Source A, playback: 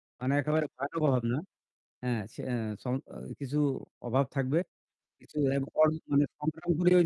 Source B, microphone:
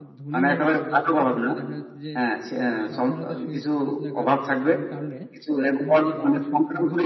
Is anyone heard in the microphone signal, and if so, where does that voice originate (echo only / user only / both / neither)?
both